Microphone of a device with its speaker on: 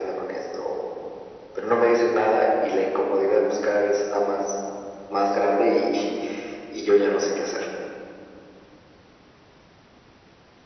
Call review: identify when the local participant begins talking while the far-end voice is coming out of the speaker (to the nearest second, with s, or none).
none